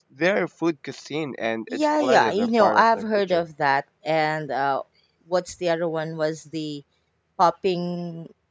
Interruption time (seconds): 1.7 s

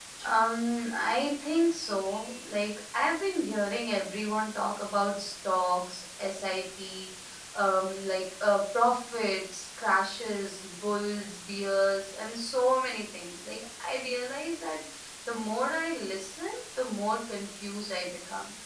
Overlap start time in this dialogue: none

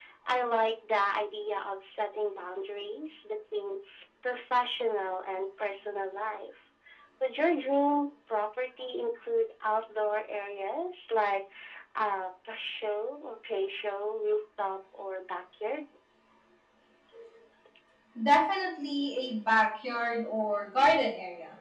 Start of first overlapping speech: none

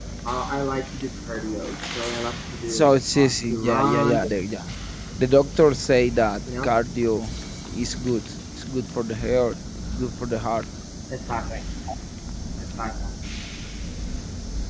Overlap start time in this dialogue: 2.7 s

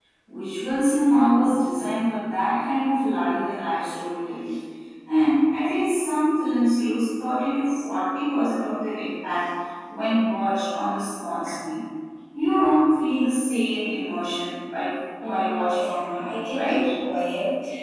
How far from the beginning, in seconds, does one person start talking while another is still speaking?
15.2 s

